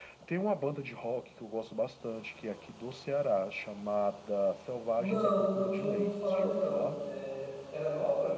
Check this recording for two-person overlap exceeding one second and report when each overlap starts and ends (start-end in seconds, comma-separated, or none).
5.0-6.9